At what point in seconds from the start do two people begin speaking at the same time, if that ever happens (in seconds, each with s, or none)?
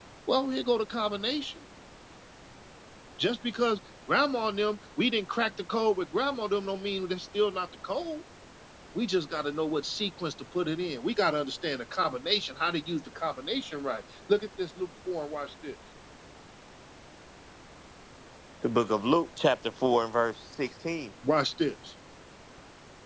none